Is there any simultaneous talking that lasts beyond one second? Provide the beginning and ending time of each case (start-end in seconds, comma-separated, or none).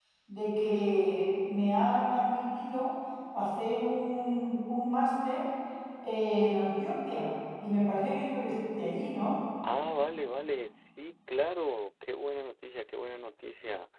none